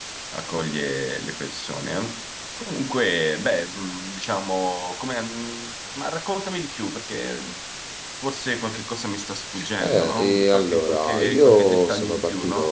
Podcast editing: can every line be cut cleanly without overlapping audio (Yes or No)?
No